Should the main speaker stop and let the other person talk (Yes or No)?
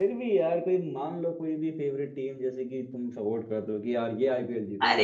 Yes